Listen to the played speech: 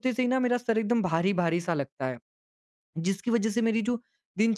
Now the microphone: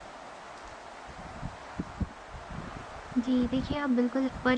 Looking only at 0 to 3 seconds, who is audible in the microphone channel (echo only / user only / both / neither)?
neither